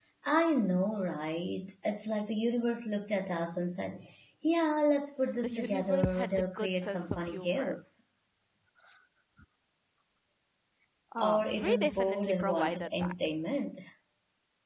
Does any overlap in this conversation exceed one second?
Yes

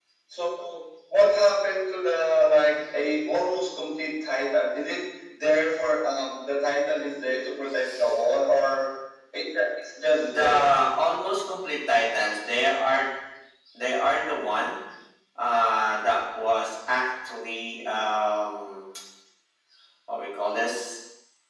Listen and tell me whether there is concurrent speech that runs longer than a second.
No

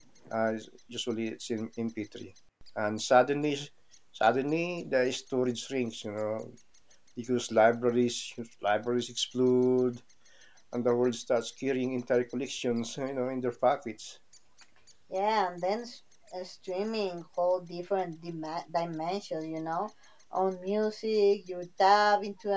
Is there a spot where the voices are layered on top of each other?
No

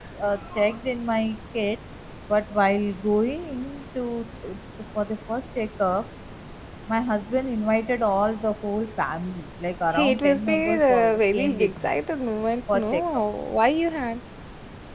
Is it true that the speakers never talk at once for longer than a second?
No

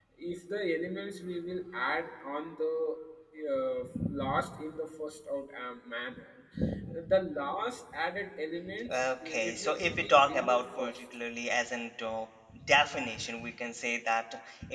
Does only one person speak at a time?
No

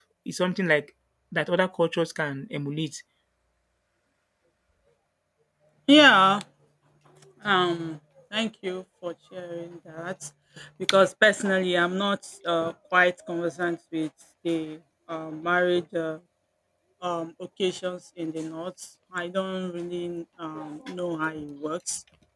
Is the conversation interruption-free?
Yes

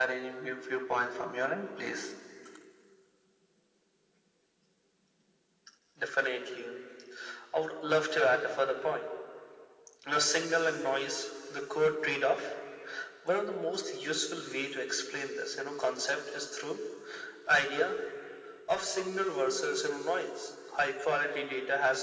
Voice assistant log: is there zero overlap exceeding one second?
Yes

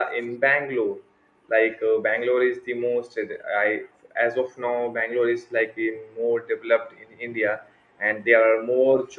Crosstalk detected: No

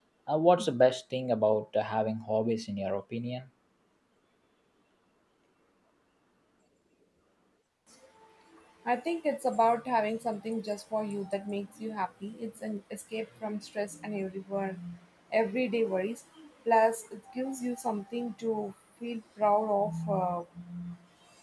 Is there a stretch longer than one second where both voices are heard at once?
No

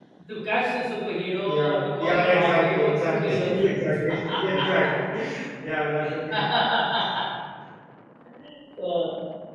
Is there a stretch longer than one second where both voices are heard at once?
Yes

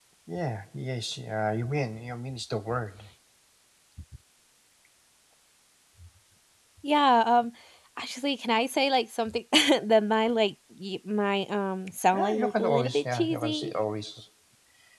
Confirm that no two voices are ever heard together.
No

